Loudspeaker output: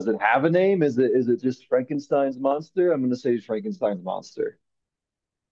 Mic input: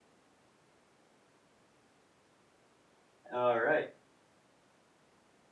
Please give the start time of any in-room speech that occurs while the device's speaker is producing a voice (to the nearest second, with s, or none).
3 s